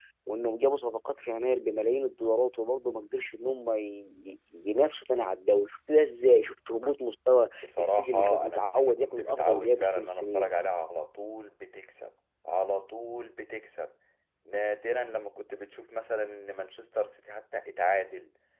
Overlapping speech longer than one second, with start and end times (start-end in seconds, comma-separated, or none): 7.6-10.5